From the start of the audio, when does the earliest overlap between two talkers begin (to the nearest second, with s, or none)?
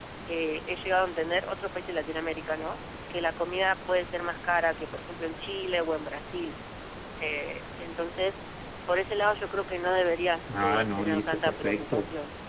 10 s